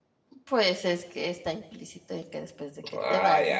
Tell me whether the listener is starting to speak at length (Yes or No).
Yes